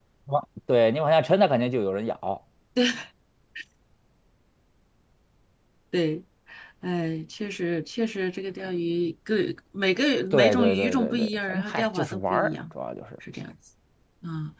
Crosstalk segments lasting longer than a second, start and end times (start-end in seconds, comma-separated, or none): 10.3-12.6